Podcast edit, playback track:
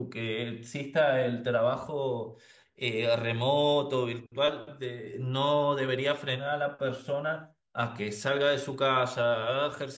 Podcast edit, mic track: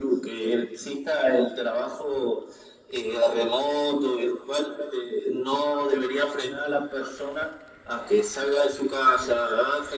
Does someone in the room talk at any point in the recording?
No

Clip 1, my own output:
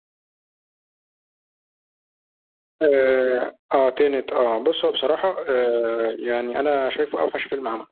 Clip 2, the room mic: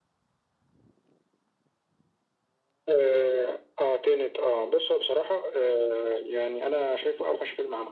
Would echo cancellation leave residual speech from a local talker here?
No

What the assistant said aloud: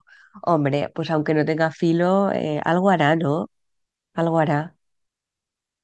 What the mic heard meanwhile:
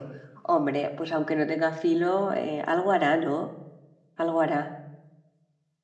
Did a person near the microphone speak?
No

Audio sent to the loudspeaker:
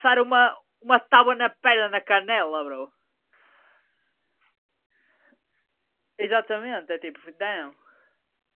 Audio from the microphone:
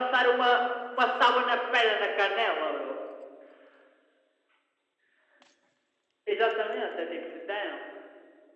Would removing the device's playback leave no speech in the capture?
Yes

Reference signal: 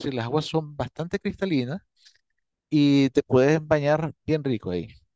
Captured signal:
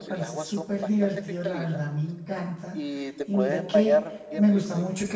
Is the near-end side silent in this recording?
No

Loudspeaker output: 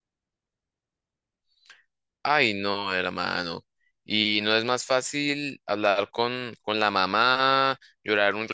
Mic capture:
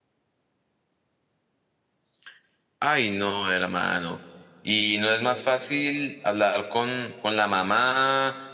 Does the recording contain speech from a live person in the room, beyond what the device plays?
No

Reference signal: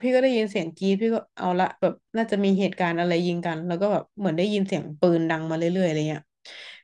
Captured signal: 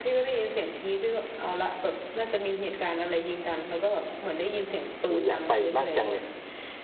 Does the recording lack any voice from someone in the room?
No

